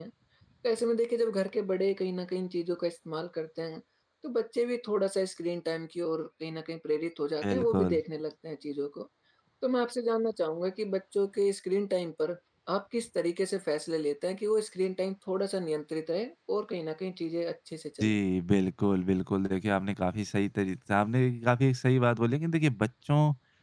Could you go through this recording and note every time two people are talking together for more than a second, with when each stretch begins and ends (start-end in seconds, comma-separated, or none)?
none